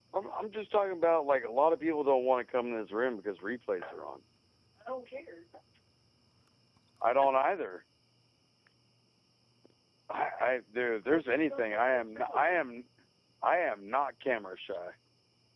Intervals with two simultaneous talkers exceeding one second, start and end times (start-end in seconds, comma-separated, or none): 11.1-12.5